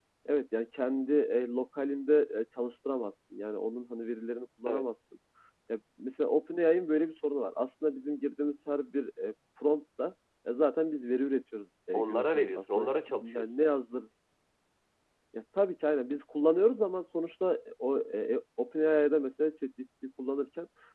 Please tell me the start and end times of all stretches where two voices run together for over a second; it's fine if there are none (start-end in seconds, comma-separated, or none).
11.9-13.4